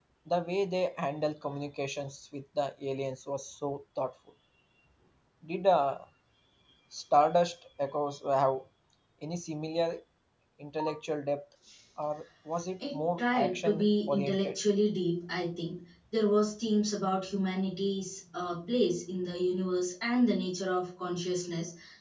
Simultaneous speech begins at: 12.8 s

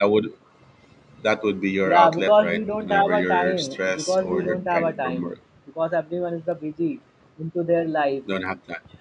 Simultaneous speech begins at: 1.9 s

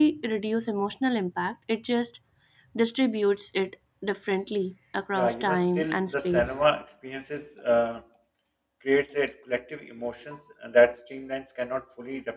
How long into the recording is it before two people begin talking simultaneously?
5.1 s

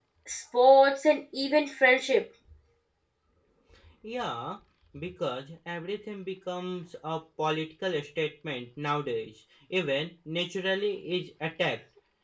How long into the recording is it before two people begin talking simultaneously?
none

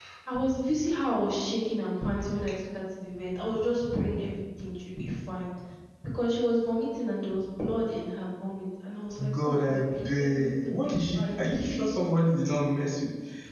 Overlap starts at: 9.2 s

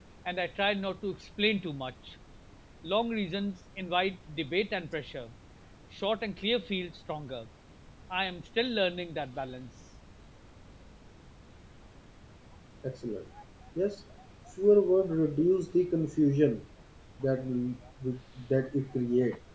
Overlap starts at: none

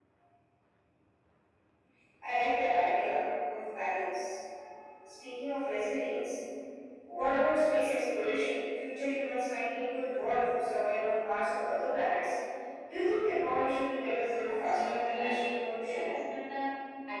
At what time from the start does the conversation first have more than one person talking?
14.4 s

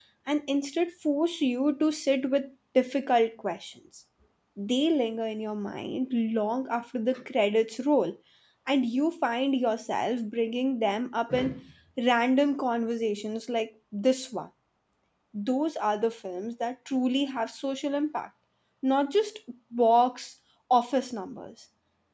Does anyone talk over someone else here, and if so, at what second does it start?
none

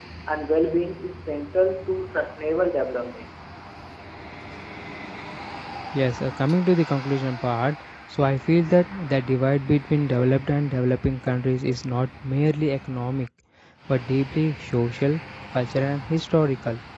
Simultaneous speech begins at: none

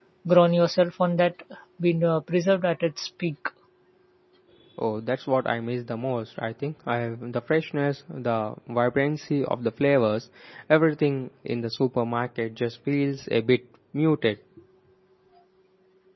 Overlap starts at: none

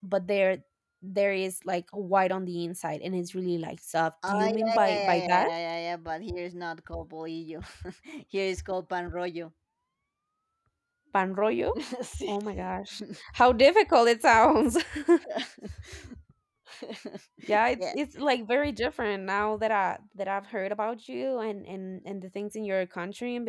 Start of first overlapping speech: 4.3 s

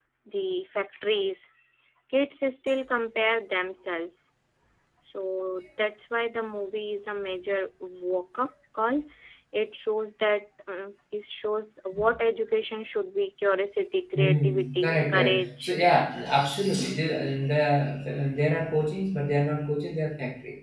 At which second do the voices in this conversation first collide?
14.2 s

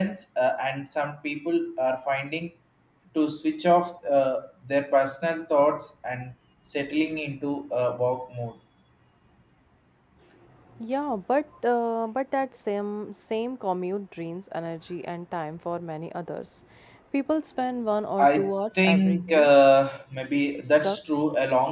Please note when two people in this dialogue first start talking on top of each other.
18.2 s

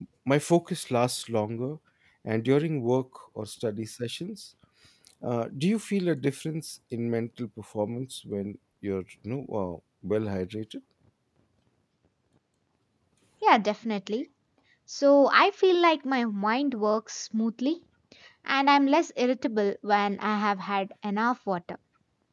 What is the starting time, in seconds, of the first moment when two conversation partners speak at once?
none

